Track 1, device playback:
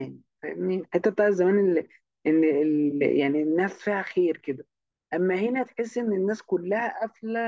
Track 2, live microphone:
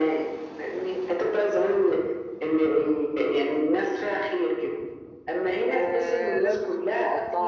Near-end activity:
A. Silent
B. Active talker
B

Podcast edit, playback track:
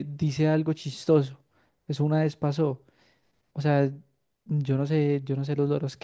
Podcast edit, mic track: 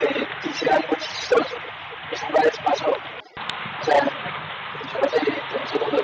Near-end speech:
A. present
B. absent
B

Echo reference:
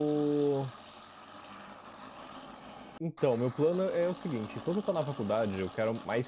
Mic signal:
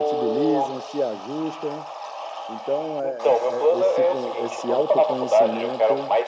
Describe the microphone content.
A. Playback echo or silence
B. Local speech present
B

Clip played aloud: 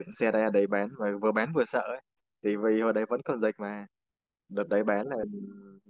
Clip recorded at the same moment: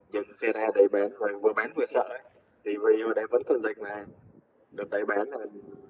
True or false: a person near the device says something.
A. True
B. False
B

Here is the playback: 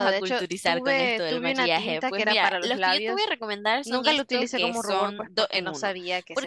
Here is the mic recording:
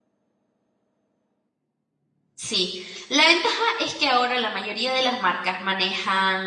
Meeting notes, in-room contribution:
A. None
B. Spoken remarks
B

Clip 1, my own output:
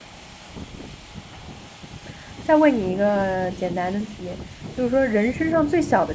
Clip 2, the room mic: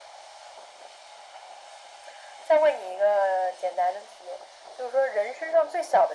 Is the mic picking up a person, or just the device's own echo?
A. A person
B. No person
B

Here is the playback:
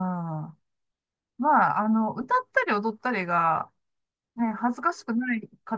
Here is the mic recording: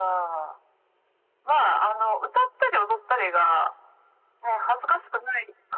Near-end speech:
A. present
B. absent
B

